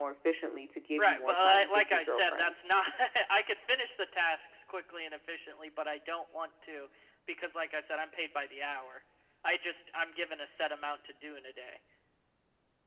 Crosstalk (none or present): present